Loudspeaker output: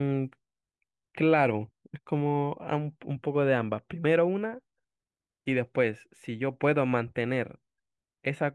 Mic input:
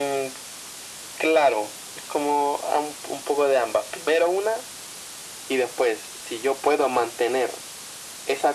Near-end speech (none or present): none